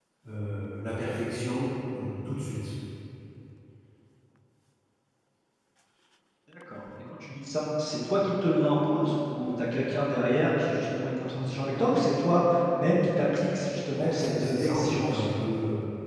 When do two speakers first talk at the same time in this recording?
13.9 s

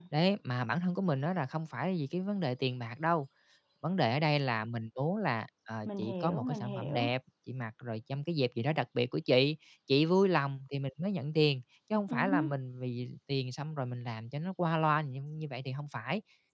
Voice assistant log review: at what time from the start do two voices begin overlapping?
5.8 s

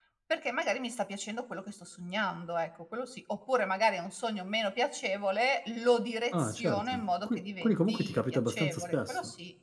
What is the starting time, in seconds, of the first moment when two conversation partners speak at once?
6.3 s

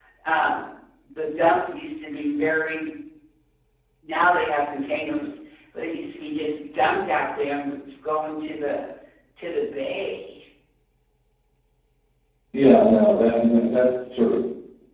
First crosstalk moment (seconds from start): none

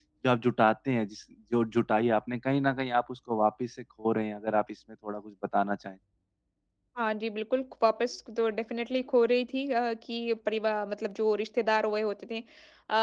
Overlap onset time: none

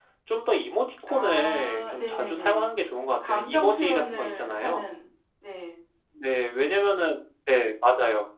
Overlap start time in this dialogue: 1.1 s

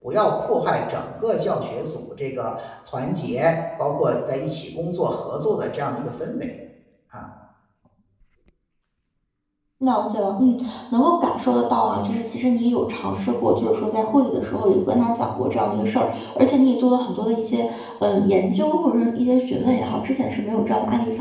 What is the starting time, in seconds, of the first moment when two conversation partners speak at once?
none

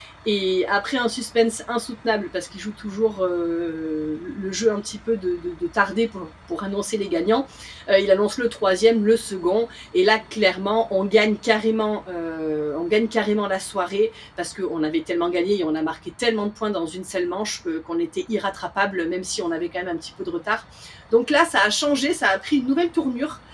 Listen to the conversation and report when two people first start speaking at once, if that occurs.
none

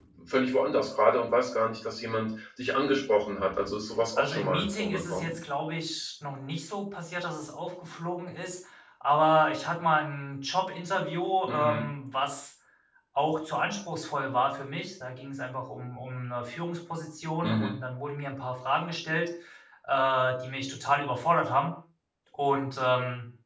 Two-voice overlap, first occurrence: 4.2 s

